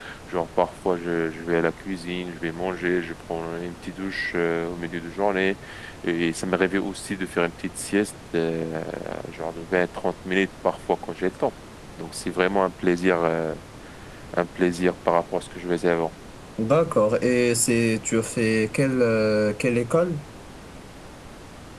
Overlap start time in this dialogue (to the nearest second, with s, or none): none